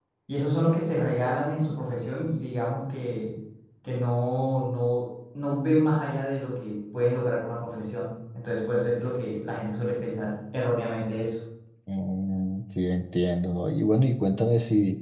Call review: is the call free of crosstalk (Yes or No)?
Yes